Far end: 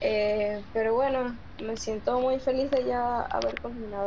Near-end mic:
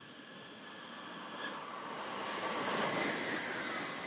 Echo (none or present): none